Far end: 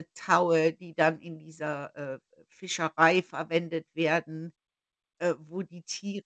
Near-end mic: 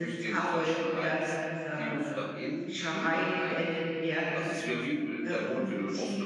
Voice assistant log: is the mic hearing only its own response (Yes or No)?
No